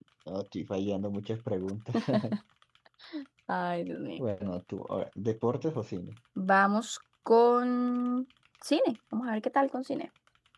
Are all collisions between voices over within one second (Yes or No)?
Yes